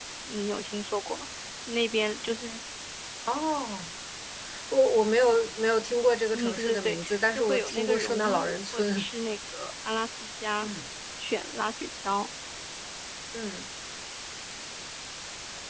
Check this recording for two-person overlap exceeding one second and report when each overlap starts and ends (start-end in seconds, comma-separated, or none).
6.3-9.1